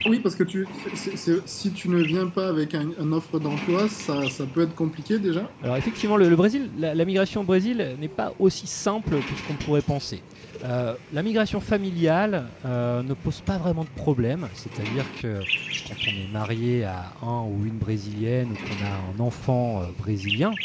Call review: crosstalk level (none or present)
none